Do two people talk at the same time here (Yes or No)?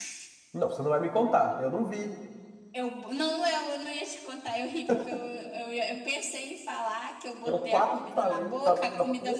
Yes